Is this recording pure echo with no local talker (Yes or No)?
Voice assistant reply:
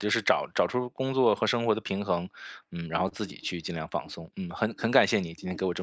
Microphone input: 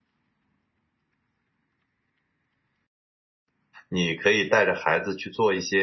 No